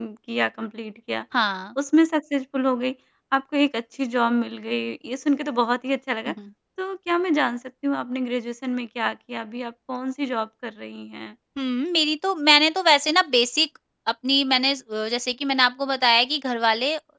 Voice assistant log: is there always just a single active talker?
Yes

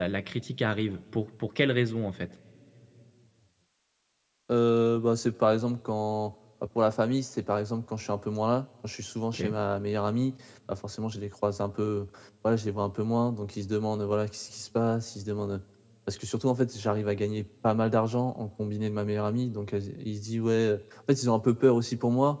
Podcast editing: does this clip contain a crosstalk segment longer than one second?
No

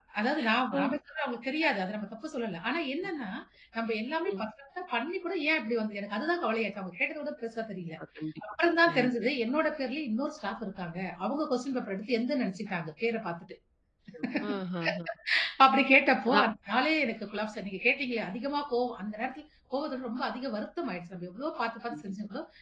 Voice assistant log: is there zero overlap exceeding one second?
Yes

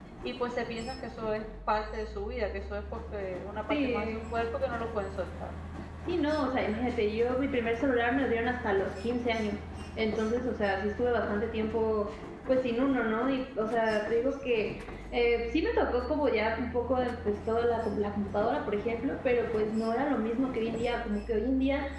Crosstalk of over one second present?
No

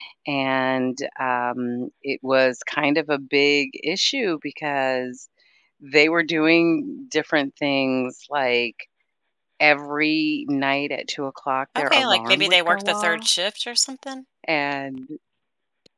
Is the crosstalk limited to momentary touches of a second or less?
No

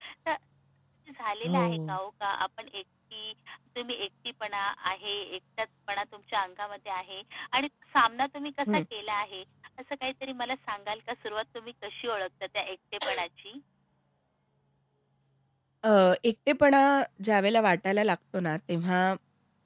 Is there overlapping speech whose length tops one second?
No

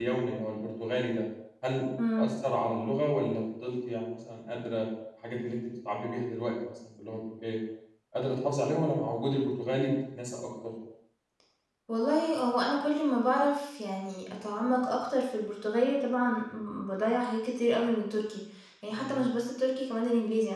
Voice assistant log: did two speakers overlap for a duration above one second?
No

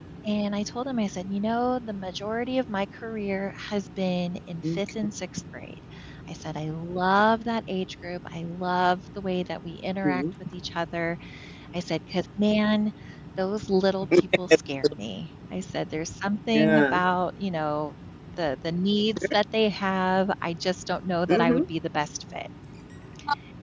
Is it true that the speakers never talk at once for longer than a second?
Yes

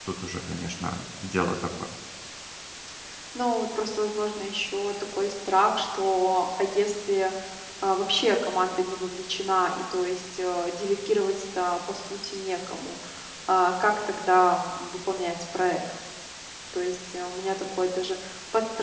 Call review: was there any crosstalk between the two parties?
No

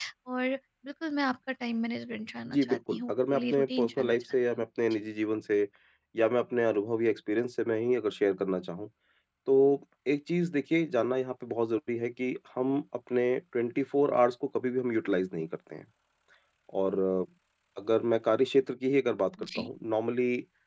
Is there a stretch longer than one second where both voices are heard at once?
Yes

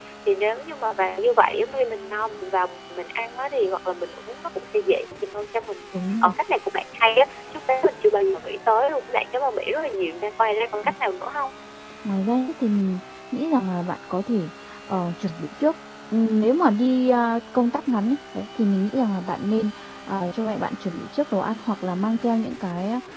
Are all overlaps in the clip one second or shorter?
Yes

